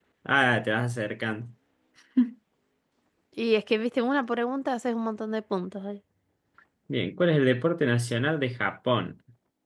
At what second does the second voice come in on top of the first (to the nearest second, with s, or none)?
none